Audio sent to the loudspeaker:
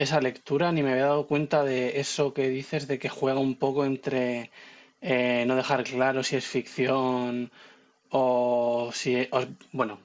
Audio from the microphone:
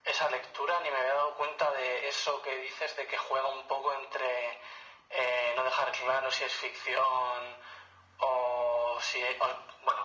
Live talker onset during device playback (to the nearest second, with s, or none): none